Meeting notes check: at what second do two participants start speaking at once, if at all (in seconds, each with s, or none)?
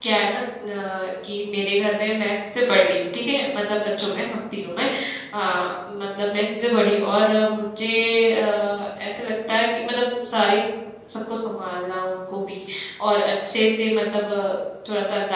none